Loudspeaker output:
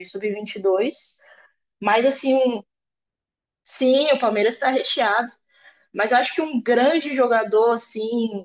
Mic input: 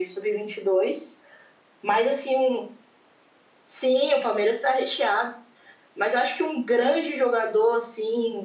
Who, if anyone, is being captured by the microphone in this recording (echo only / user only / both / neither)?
echo only